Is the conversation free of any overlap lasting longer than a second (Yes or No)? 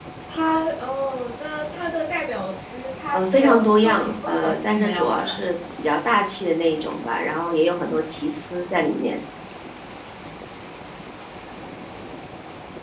No